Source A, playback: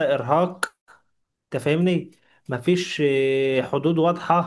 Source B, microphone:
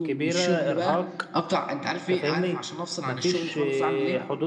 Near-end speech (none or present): present